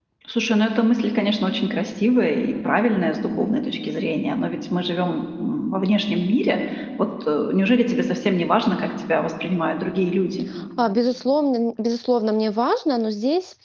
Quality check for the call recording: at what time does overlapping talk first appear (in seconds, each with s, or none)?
none